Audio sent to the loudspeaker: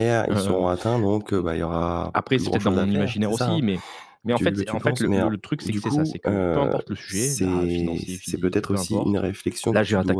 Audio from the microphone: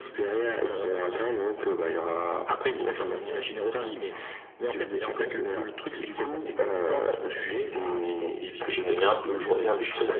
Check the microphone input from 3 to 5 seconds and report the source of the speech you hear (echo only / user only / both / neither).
echo only